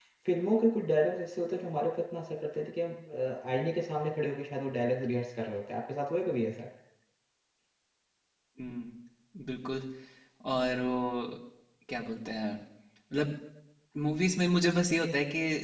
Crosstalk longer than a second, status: none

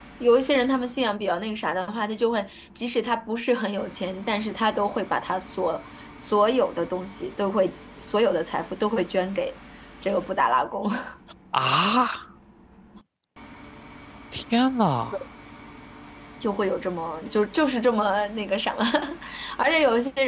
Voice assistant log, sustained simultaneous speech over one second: none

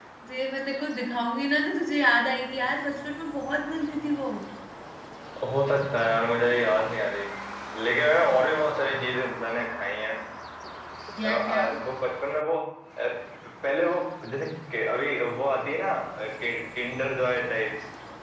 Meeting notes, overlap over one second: none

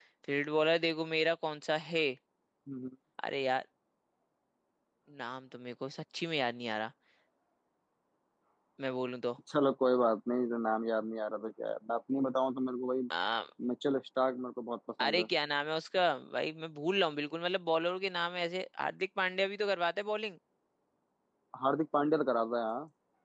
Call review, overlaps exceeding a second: none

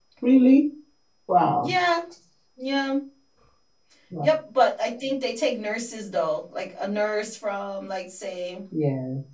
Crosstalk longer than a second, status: none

